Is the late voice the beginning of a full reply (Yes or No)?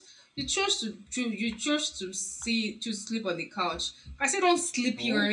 No